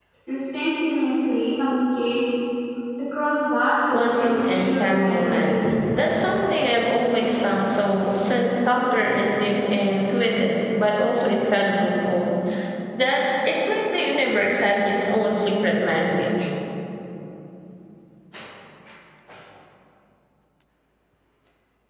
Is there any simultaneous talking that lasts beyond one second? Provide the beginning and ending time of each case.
3.9-5.6

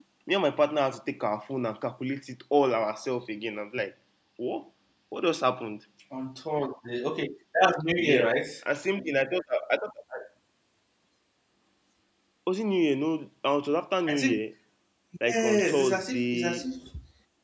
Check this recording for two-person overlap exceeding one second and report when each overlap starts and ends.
15.2-16.6

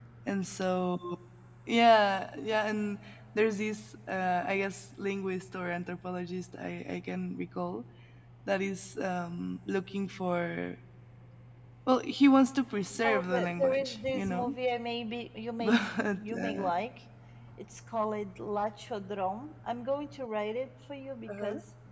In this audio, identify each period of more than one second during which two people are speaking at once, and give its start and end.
13.0-14.5

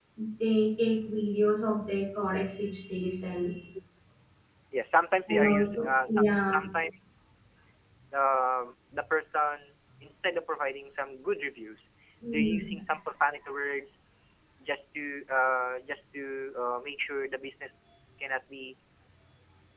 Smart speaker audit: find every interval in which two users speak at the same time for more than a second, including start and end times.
5.3-6.6

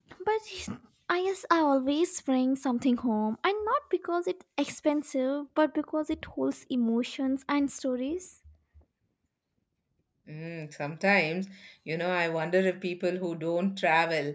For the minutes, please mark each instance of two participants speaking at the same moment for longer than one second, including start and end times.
none

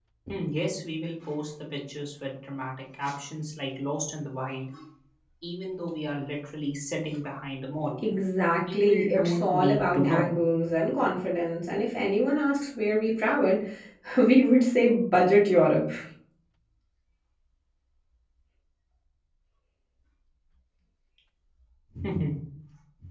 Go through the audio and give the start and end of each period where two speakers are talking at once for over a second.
8.7-10.3

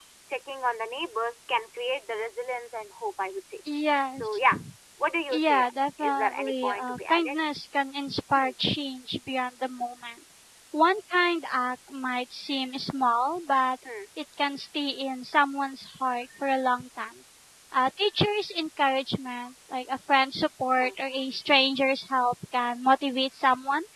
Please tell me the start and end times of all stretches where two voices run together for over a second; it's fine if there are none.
6.0-7.4

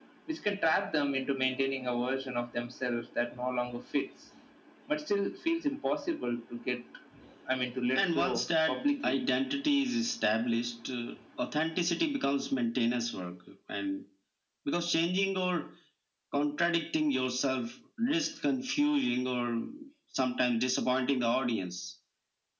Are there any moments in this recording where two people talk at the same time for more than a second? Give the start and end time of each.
8.0-9.2

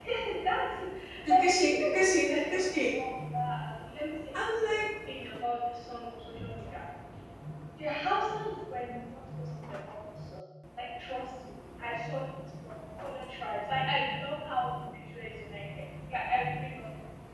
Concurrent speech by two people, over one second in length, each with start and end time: 1.4-2.6

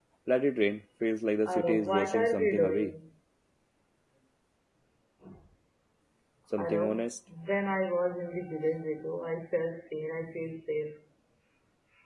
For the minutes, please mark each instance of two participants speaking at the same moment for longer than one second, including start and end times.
1.5-2.9

